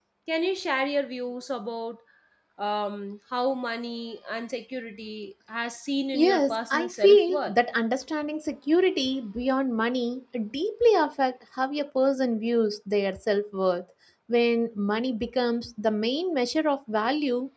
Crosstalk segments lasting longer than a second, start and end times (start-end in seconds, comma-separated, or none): 6.1-7.5